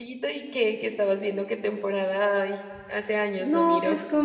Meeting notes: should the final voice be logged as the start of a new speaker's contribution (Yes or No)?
Yes